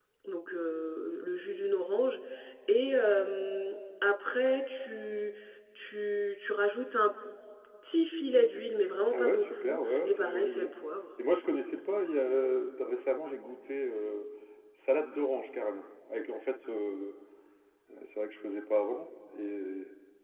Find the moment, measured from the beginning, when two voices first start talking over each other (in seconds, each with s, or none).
9.1 s